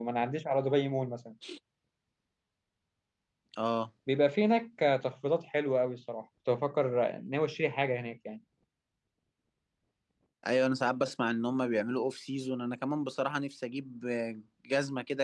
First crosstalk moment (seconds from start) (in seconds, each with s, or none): none